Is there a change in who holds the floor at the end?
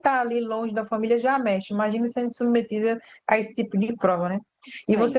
No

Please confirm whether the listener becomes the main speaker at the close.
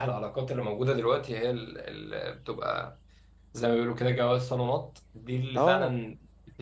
No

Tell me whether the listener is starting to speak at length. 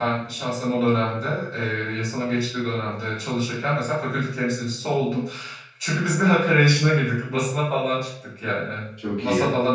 No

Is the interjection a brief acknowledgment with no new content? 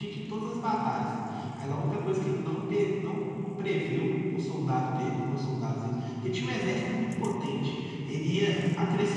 Yes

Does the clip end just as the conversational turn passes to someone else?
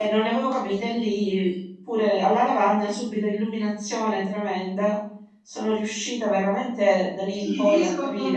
Yes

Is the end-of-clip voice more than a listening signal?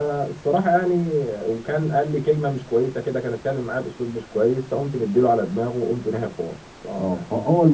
Yes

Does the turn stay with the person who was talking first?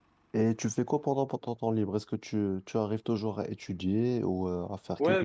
No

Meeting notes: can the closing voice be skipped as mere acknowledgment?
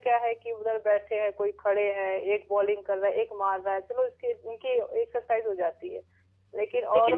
No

